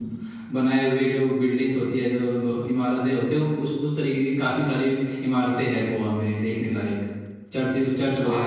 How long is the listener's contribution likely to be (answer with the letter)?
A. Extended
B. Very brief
A